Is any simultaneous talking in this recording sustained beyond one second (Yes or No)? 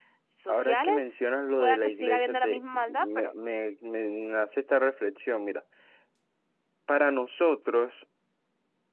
Yes